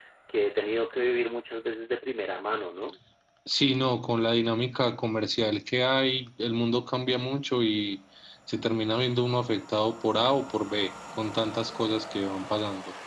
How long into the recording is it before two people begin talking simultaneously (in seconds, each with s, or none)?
none